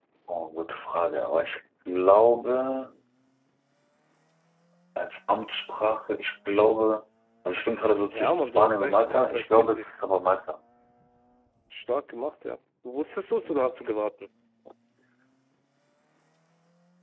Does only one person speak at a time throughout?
No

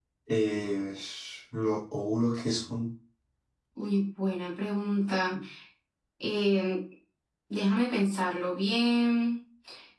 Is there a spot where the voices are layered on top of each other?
No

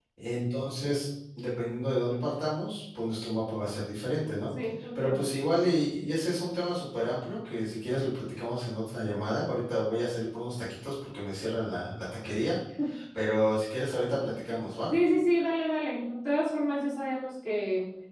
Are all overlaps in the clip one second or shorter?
Yes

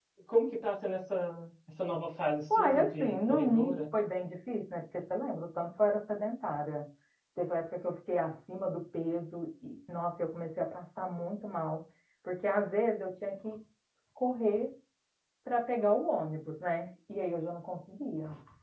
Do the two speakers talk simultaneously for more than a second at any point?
Yes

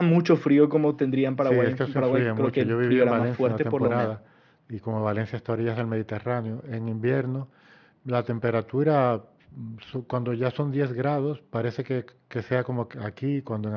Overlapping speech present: Yes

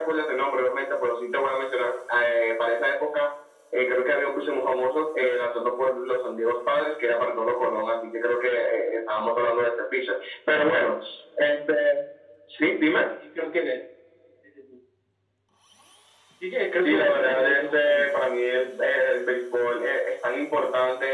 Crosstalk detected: Yes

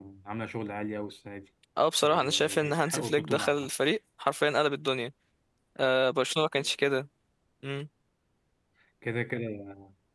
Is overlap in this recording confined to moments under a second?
No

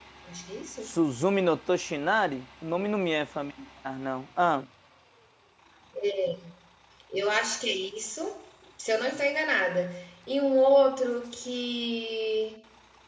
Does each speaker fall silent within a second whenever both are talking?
Yes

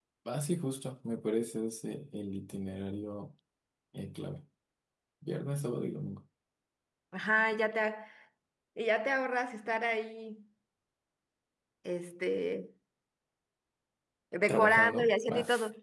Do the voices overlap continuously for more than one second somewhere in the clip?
Yes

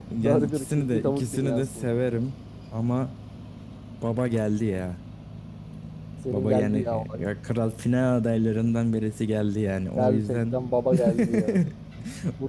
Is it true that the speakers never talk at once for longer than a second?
No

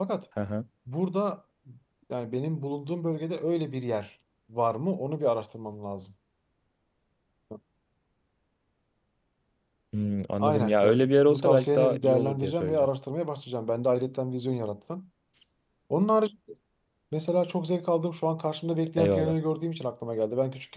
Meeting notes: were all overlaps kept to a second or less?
No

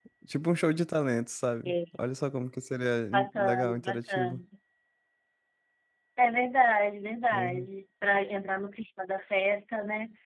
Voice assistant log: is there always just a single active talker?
No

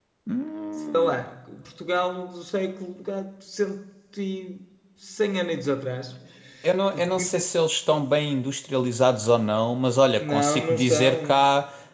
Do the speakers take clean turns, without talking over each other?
No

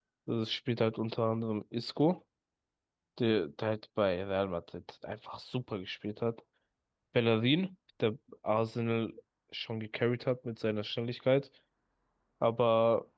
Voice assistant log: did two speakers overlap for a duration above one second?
No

